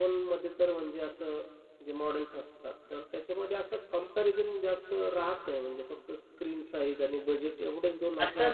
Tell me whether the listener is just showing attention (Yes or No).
No